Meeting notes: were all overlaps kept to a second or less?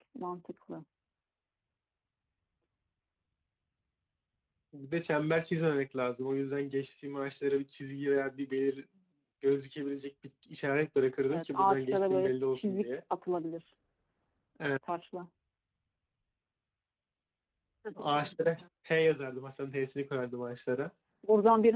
No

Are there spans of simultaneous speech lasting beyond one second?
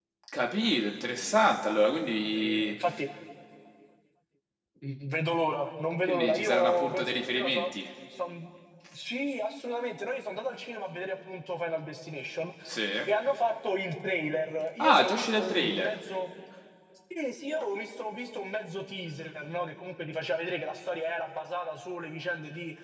Yes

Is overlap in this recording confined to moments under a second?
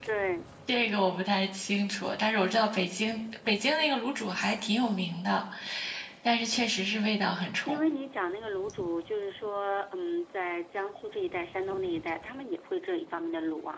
Yes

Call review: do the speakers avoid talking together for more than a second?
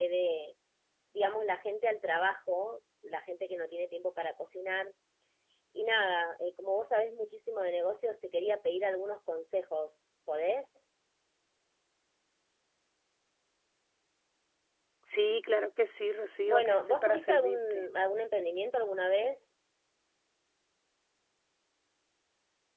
No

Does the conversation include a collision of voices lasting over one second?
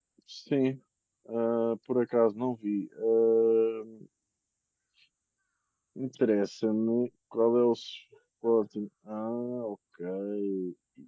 No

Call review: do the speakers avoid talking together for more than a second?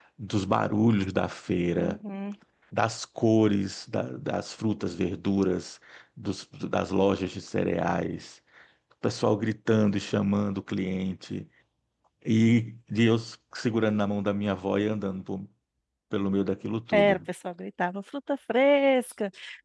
Yes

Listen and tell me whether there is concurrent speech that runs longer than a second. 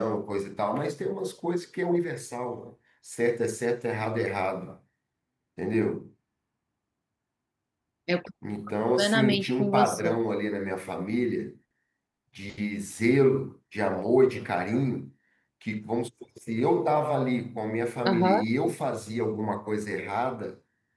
Yes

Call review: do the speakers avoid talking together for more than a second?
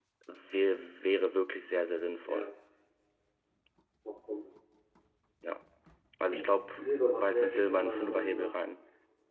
No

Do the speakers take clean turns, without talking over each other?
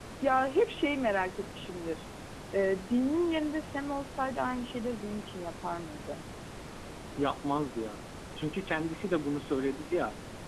Yes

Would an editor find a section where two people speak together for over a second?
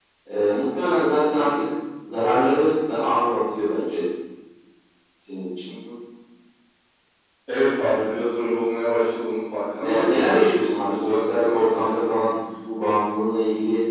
Yes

